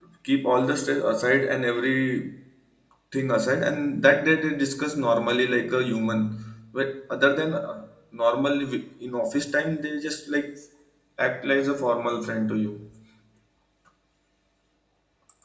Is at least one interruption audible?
No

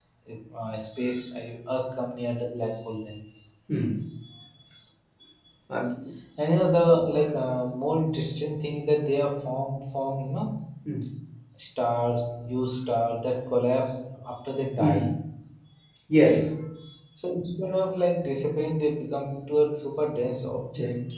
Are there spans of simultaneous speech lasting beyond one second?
No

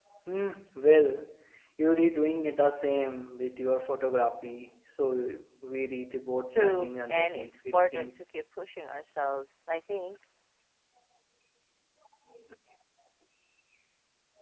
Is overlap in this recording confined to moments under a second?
No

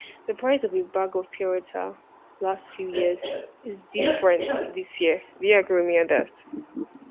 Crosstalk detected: No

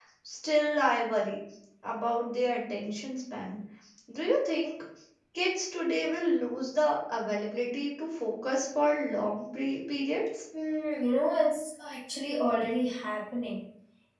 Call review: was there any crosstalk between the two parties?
No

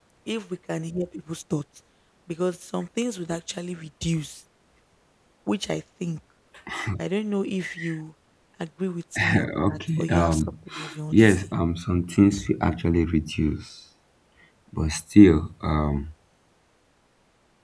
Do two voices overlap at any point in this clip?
Yes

